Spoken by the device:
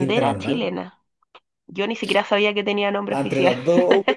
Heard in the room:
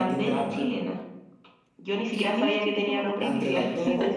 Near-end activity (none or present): present